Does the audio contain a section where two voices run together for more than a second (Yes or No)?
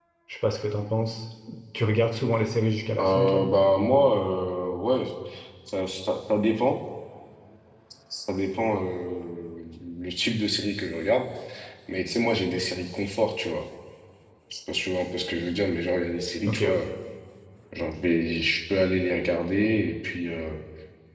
No